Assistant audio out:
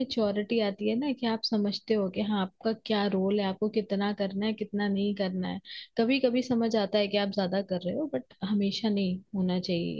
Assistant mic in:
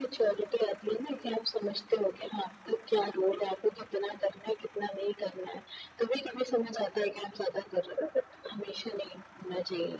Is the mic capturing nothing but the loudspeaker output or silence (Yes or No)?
Yes